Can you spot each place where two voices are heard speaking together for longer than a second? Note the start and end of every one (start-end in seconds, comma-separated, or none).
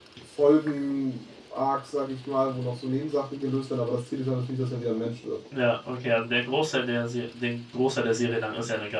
none